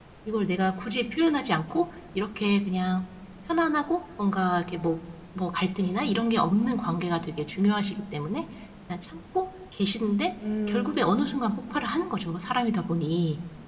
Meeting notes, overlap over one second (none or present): present